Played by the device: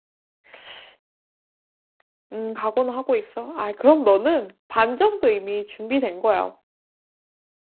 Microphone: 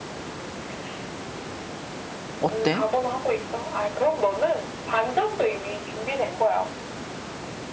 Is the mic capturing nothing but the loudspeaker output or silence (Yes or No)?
No